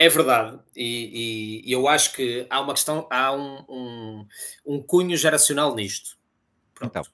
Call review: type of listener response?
listening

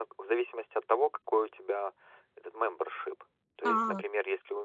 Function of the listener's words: listening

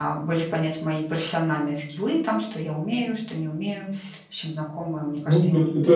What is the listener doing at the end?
taking over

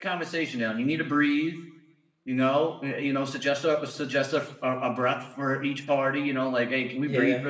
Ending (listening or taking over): listening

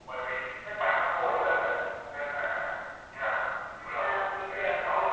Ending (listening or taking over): taking over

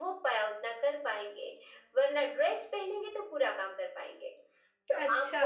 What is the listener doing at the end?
listening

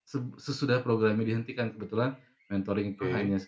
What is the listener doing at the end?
listening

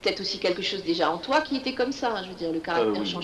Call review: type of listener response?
listening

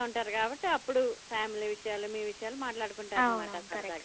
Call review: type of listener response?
taking over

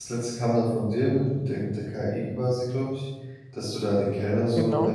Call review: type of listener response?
listening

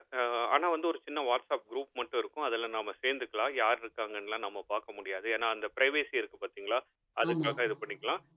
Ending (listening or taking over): listening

